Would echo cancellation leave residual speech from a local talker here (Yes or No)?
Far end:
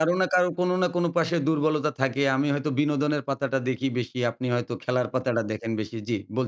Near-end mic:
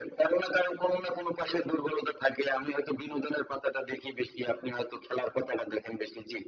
No